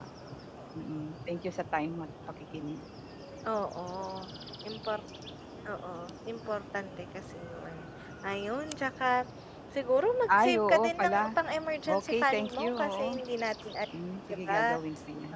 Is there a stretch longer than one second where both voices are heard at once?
Yes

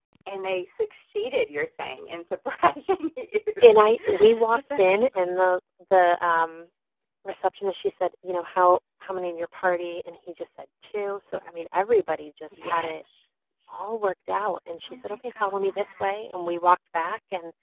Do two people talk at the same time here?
Yes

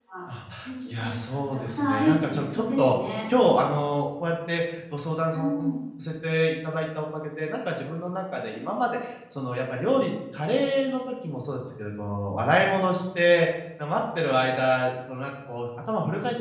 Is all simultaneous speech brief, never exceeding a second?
No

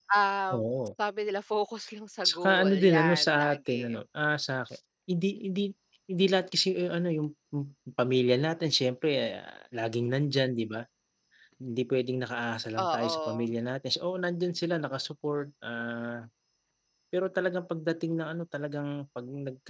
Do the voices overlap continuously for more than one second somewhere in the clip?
Yes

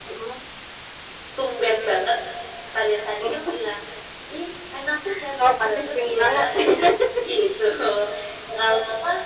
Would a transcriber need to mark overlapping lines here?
Yes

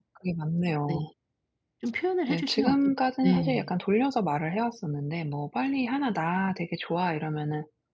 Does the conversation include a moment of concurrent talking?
Yes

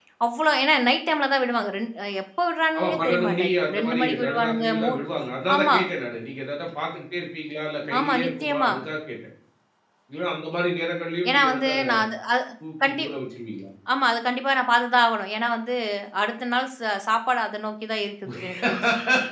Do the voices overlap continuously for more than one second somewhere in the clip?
Yes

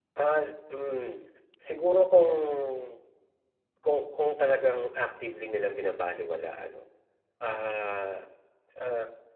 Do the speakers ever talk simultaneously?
No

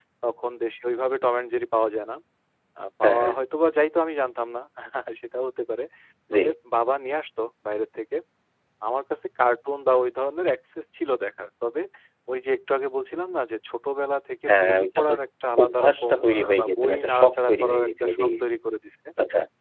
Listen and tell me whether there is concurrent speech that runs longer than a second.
Yes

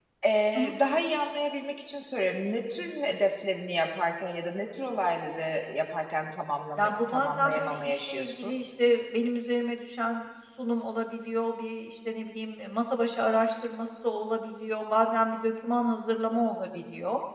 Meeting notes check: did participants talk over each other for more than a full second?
Yes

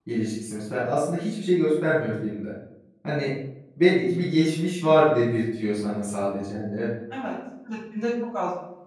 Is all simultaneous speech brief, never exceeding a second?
Yes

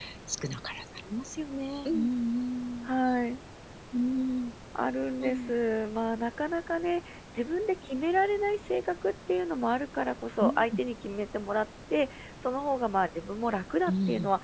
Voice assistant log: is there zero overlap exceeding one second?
Yes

